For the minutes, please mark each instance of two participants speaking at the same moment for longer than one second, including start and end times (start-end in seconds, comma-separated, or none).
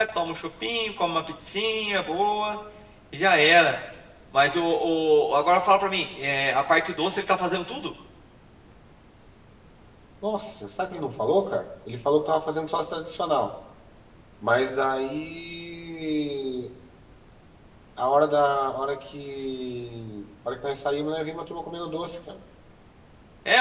none